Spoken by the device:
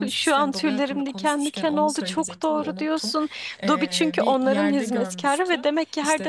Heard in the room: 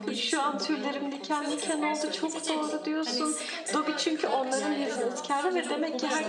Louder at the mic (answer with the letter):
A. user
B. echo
B